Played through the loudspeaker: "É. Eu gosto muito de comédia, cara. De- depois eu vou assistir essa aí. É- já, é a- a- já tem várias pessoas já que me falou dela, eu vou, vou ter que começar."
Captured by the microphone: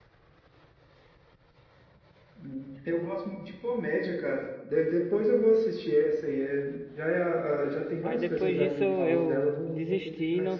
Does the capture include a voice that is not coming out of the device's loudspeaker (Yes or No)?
Yes